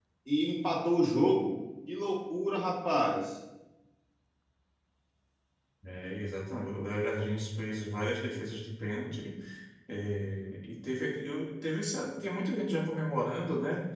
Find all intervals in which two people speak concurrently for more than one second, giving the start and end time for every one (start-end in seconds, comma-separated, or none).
none